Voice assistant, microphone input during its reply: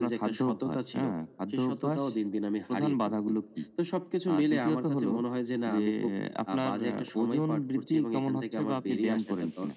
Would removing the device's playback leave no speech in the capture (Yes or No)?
Yes